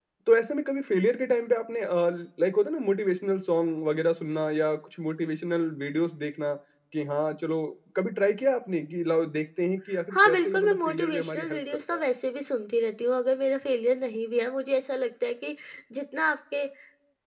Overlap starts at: 10.1 s

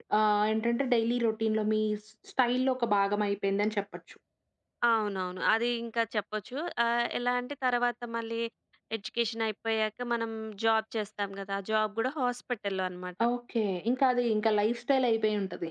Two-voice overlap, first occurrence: none

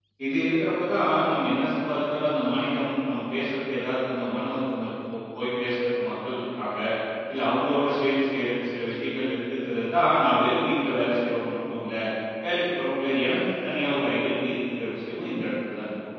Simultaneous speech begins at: none

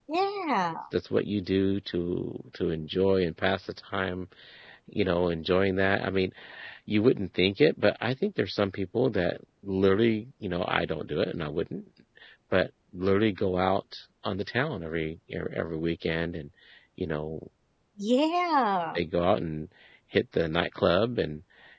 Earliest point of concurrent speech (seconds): none

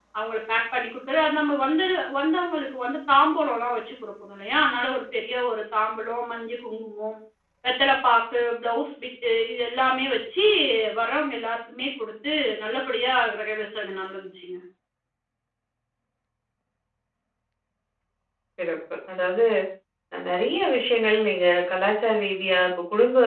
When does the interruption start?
none

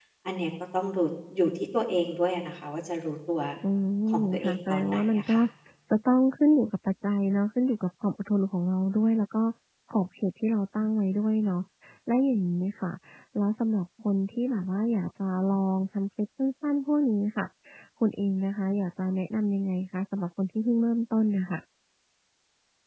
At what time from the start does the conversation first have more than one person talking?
4.2 s

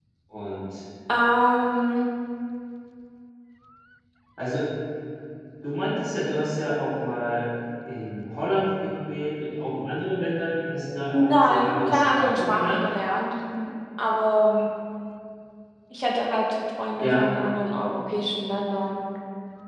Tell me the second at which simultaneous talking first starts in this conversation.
11.1 s

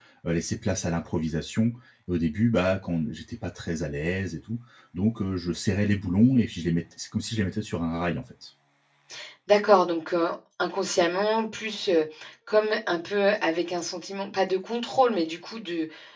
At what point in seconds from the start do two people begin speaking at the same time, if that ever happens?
none

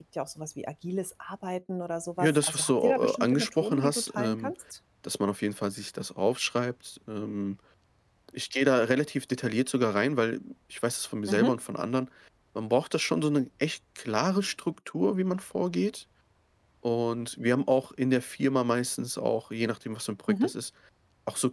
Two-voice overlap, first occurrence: 2.2 s

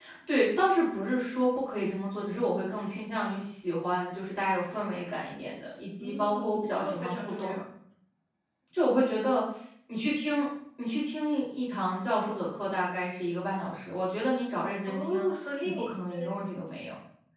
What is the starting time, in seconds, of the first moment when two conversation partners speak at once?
6.0 s

